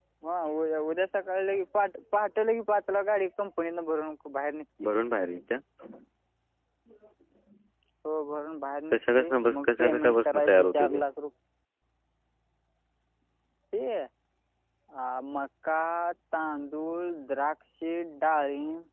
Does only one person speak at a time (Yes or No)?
No